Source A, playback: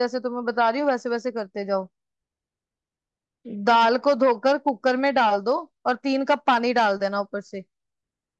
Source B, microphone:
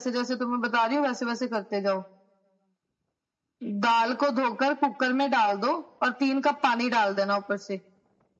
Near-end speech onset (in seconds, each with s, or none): none